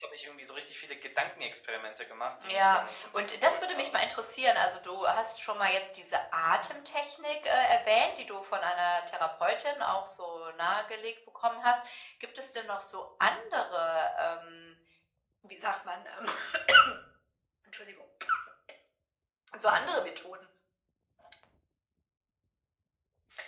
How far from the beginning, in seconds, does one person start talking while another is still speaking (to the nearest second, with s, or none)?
2 s